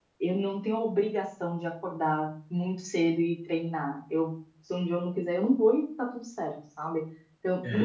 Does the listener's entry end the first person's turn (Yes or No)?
Yes